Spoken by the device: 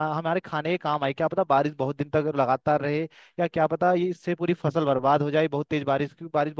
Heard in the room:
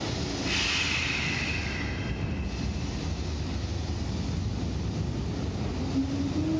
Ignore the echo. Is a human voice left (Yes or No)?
No